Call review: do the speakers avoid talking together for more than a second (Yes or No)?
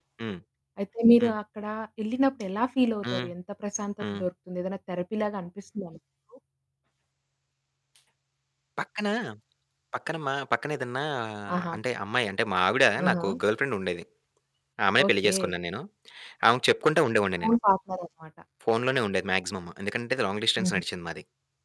Yes